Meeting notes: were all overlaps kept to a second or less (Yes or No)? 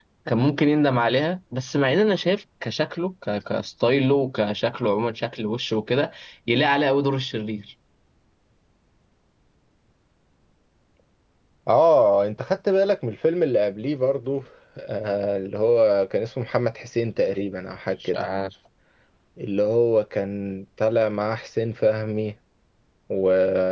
Yes